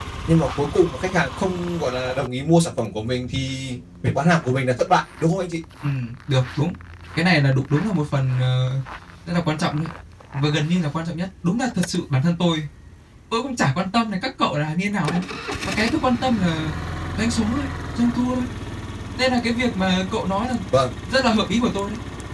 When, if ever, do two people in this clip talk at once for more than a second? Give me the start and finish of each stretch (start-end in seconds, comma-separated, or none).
none